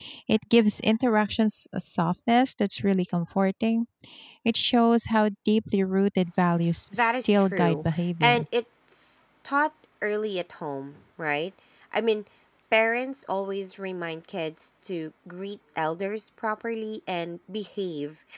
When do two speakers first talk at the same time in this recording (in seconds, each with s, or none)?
6.9 s